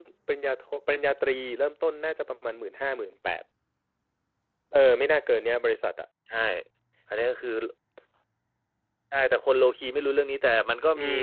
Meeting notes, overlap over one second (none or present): none